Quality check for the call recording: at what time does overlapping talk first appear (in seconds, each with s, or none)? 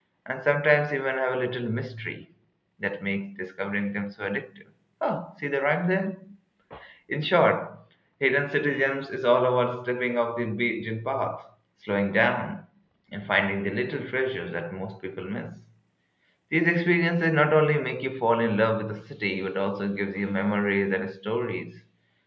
none